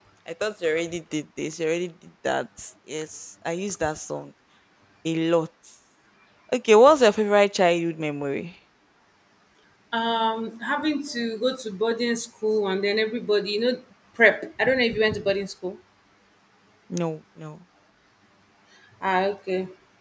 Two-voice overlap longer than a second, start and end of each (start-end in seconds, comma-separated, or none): none